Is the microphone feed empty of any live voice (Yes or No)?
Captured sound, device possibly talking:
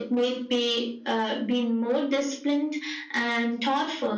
Yes